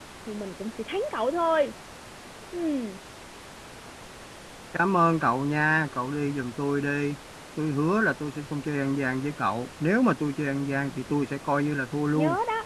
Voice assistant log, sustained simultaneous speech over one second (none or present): none